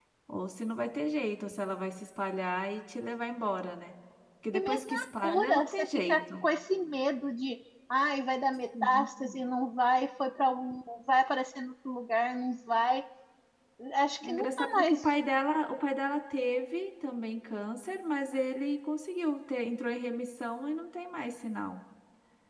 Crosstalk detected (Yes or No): Yes